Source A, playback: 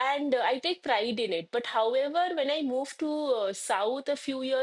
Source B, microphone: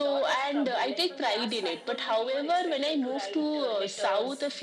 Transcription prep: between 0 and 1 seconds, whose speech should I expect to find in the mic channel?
both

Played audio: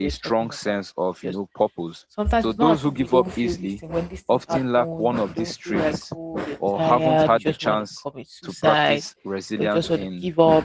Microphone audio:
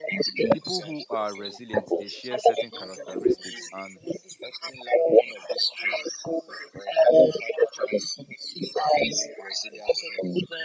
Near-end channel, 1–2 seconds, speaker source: both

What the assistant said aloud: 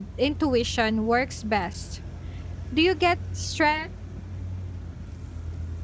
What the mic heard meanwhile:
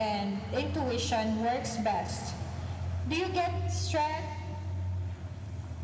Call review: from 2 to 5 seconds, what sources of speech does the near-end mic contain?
echo only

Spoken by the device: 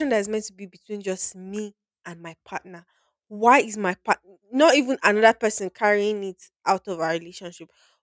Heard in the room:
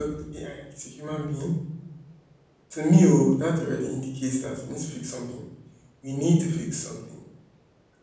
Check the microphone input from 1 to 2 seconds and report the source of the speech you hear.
user only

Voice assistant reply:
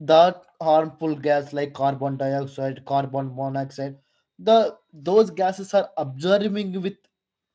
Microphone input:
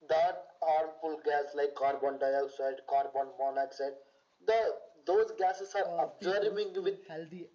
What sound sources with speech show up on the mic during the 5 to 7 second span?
both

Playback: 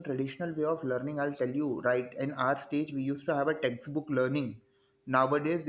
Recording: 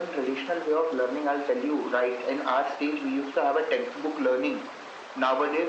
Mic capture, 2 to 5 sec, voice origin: echo only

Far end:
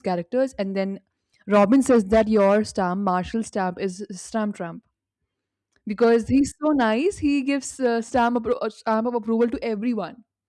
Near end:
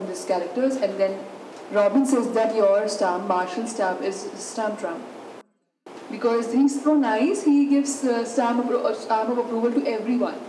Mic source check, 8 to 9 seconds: echo only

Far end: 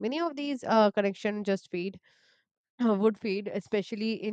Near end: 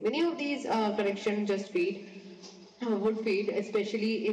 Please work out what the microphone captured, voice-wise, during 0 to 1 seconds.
echo only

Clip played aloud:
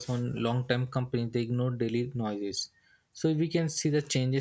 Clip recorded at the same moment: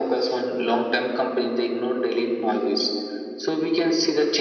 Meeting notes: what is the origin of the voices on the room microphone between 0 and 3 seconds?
echo only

